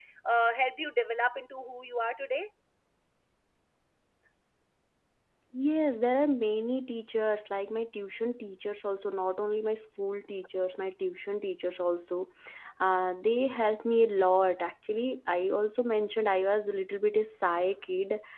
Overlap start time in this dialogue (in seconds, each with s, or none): none